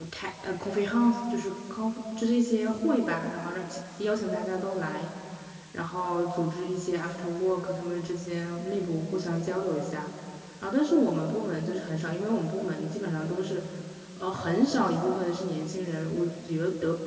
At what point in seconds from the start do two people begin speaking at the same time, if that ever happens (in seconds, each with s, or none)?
none